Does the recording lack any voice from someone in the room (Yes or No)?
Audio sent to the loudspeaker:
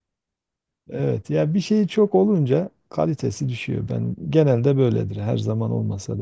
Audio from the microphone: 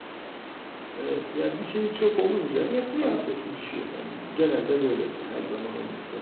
No